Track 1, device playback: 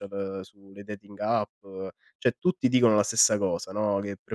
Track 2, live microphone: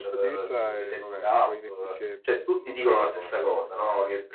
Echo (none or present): present